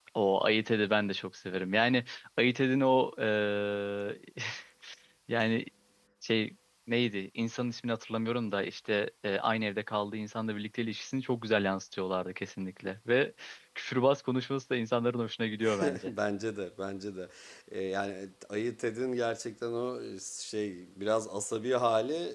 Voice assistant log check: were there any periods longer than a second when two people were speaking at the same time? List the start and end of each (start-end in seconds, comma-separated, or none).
none